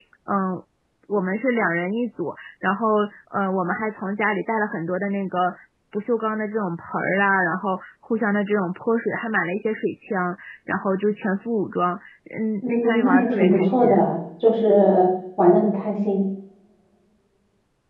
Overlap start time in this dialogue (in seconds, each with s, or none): 12.6 s